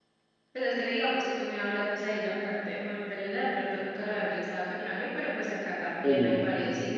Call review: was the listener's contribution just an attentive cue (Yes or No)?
Yes